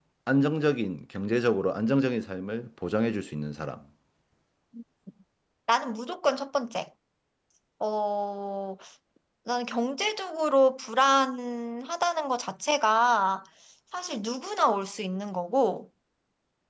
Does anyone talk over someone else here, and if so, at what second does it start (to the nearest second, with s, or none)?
none